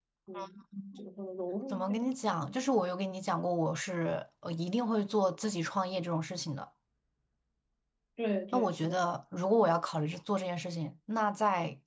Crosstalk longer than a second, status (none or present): none